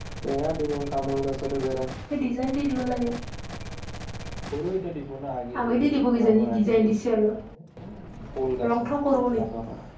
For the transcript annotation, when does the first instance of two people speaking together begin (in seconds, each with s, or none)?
5.6 s